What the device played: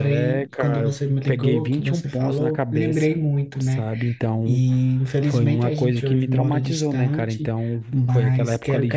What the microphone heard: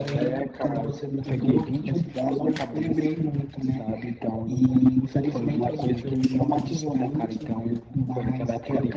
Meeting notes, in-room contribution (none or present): none